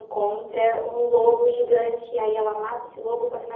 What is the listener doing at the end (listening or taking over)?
listening